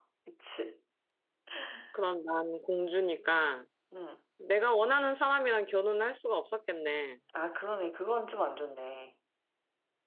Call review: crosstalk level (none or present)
none